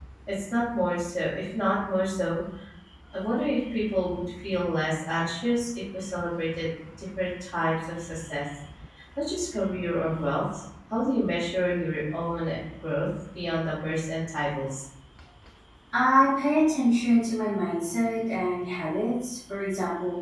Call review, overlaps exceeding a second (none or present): none